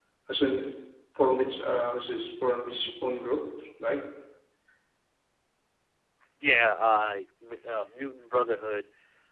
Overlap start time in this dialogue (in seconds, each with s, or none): none